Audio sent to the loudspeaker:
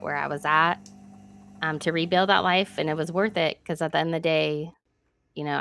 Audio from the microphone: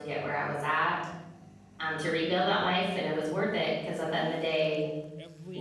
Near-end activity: present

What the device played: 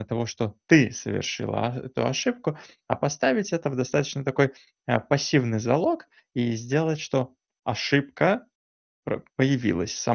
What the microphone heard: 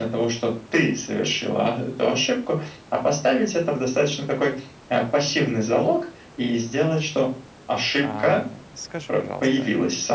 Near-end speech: present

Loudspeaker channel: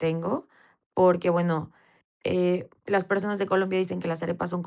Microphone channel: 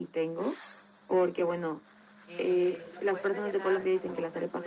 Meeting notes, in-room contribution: present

